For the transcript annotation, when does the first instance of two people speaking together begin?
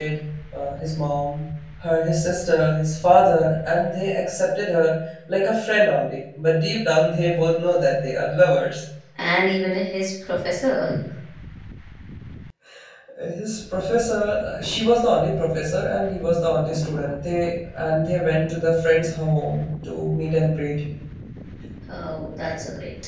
none

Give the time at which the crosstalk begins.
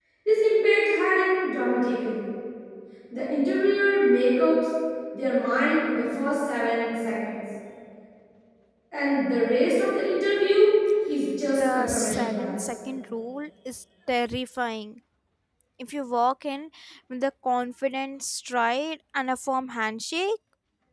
11.5 s

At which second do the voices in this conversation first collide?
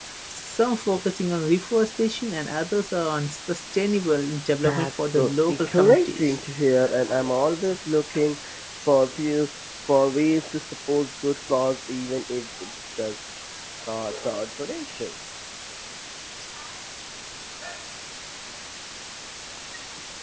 4.6 s

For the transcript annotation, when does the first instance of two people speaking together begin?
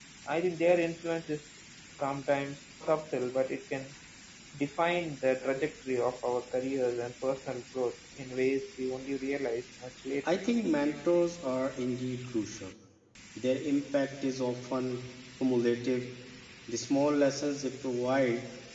none

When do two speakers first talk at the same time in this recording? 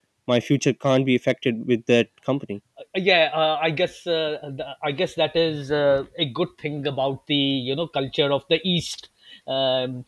none

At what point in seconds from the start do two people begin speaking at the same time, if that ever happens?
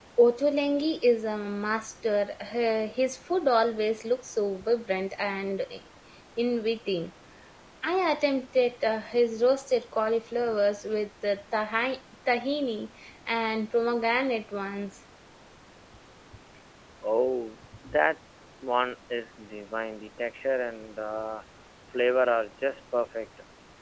none

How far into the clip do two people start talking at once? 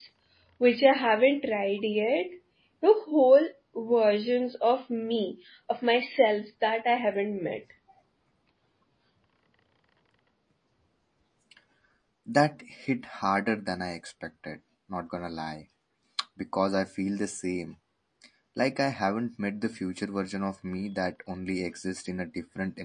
none

